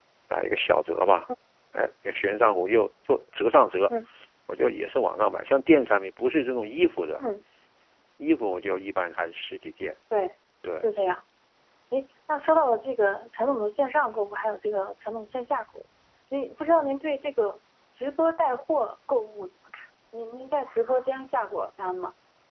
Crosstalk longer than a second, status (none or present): none